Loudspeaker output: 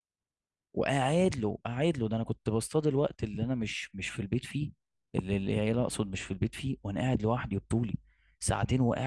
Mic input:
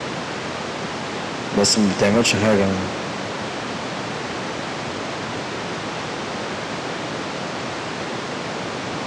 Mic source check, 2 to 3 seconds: user only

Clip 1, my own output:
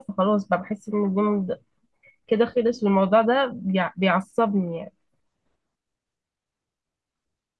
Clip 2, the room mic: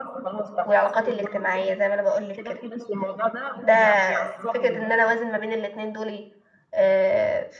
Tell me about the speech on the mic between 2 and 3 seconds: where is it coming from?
both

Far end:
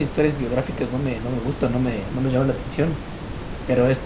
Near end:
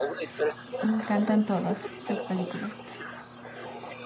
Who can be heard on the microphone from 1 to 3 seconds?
both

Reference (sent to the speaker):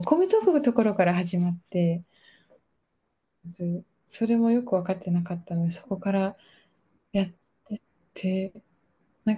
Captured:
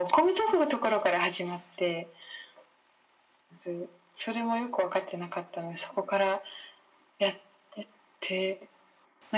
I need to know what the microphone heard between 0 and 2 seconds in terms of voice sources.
echo only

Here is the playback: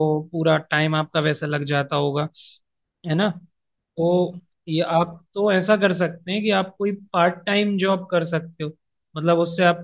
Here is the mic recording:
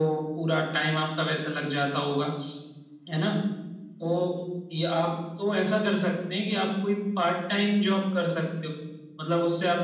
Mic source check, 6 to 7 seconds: echo only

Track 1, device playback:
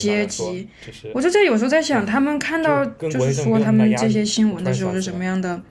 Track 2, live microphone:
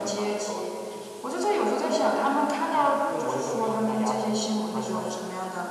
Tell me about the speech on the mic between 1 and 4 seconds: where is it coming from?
echo only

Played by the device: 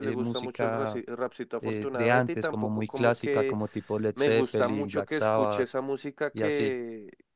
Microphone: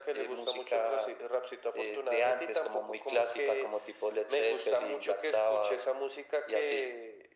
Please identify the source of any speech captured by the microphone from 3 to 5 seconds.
echo only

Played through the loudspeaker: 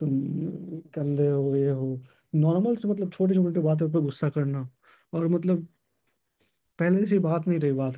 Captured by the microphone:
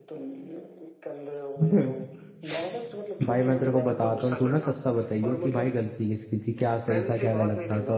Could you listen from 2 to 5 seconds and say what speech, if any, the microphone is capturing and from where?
both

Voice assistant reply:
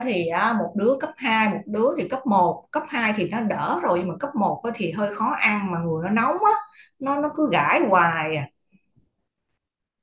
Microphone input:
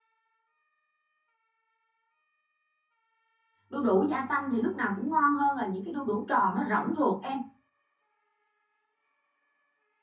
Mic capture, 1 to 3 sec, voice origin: neither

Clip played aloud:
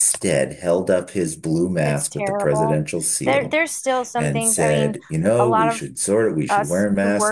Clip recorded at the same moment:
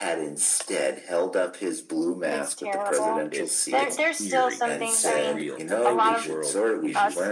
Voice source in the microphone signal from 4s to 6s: both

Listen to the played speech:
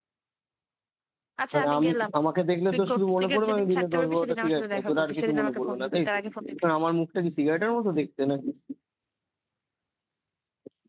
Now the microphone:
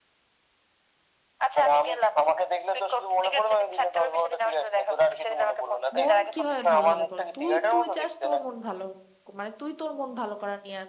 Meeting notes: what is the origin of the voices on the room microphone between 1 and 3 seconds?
echo only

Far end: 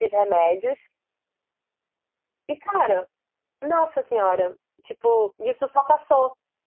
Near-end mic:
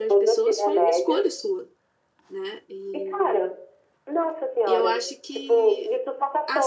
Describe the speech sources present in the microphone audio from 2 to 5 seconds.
both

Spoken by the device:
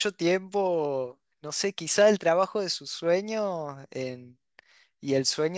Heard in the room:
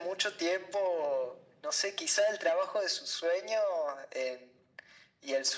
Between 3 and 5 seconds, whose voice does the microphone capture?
echo only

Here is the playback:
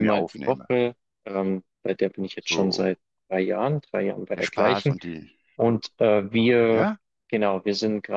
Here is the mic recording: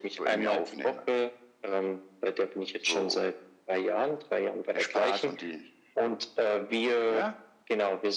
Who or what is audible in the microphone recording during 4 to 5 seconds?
echo only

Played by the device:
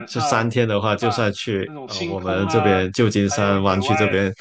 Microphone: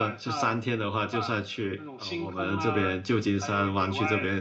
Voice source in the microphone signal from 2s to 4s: echo only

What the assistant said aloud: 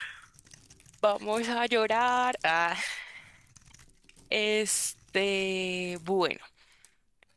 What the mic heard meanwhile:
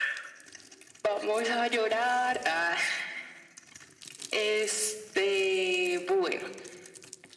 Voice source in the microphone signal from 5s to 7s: echo only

